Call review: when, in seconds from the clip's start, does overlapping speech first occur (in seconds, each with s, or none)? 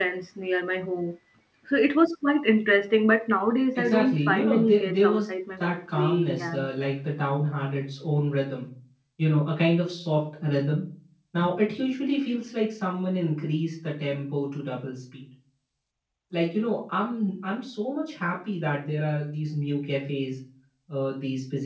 3.8 s